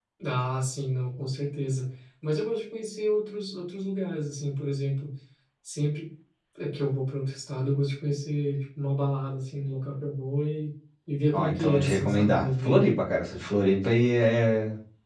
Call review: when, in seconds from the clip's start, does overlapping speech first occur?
11.3 s

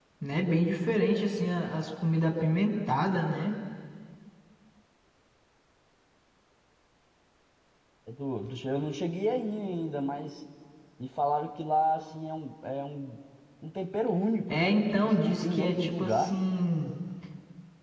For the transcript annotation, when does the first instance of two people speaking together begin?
14.5 s

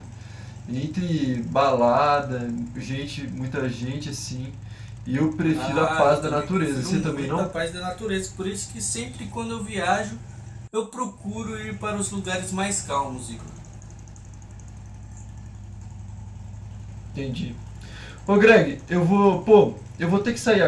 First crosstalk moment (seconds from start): 5.5 s

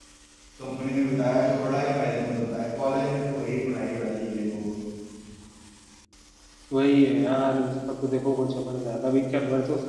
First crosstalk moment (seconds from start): none

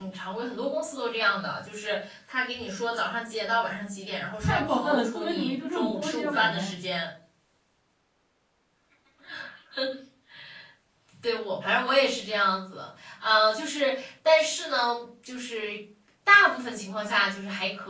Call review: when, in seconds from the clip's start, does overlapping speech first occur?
4.4 s

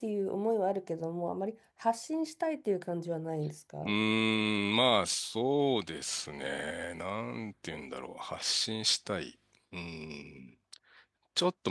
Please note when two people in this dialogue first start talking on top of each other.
none

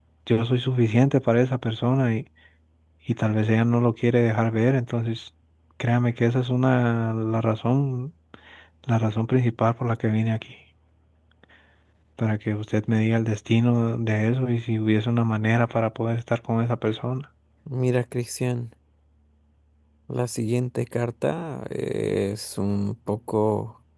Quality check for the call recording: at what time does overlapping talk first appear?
none

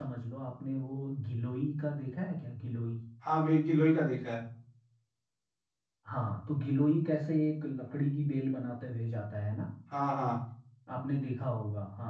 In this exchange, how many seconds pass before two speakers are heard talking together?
none

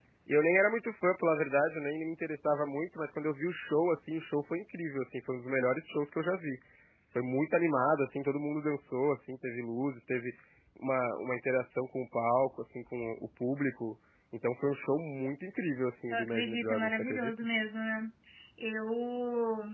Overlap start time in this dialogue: 16.1 s

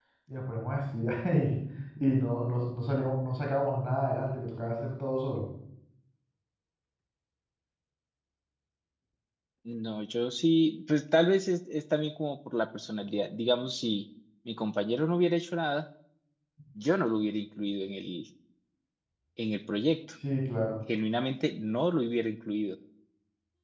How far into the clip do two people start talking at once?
none

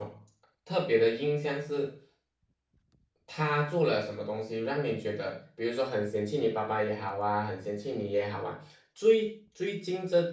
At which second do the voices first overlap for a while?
none

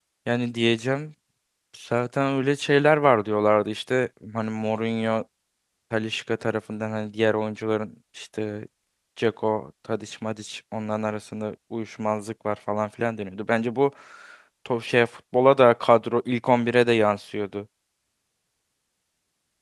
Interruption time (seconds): none

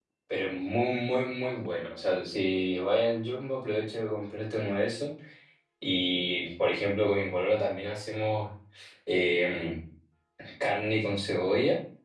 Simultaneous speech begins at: none

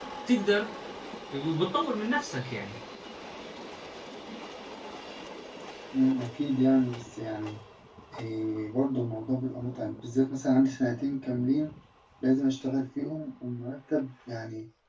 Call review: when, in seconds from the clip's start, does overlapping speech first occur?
none

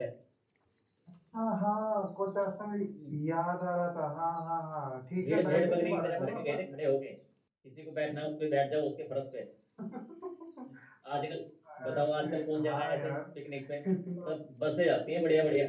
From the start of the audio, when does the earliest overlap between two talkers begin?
5.2 s

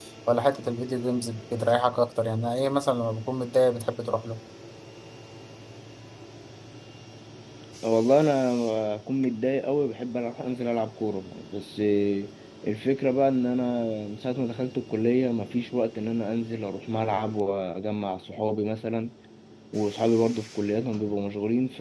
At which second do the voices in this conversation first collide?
none

